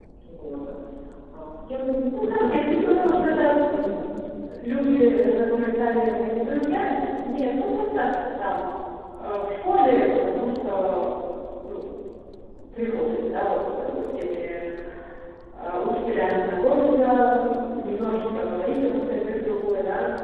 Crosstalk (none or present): present